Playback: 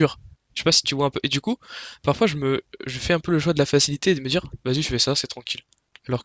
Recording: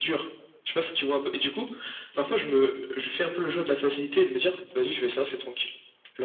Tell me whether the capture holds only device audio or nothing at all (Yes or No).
Yes